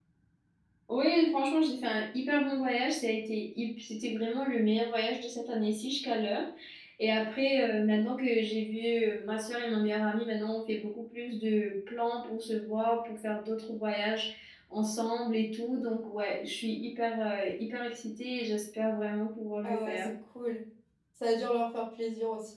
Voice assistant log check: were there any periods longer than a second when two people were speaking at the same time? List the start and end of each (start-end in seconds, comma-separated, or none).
none